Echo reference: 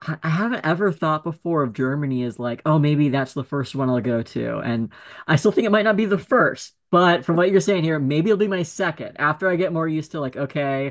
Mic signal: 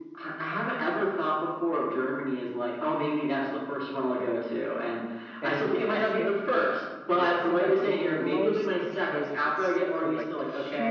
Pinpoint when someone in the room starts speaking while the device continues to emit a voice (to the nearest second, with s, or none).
5 s